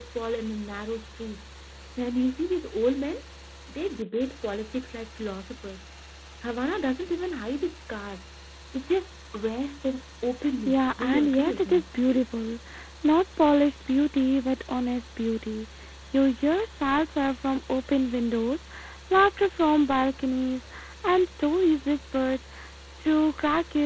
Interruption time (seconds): 10.7 s

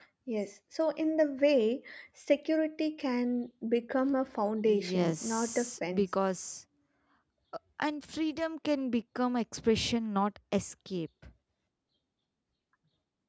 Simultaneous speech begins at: 4.6 s

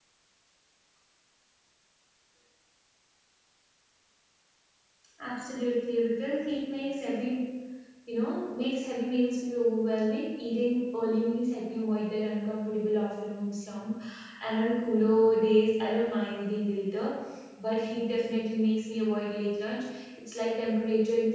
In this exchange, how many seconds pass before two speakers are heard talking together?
none

